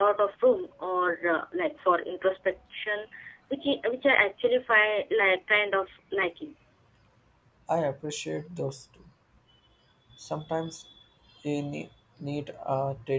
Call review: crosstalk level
none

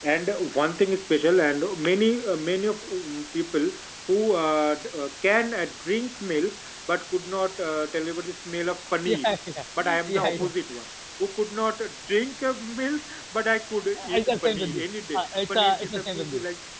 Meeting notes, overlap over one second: present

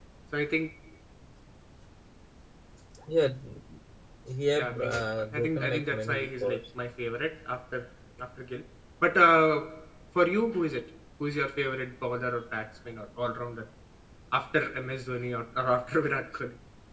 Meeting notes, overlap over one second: present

